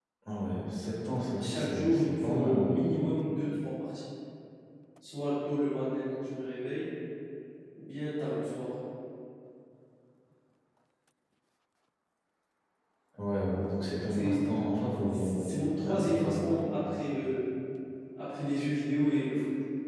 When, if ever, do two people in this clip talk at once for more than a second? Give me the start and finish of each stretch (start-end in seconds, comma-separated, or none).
1.4-2.7, 15.1-16.6